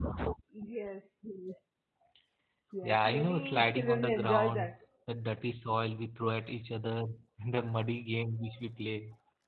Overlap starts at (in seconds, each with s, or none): 2.8 s